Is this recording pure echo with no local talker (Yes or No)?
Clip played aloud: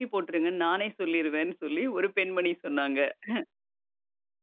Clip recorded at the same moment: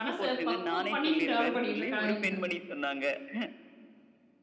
No